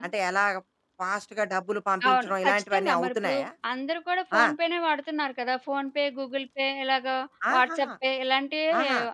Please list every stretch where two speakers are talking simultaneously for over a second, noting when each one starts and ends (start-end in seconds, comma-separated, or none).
2.1-3.4